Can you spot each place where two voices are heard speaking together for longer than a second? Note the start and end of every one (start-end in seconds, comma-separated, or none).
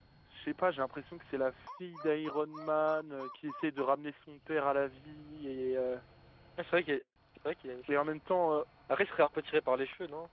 none